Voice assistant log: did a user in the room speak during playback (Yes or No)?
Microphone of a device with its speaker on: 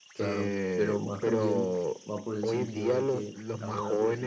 Yes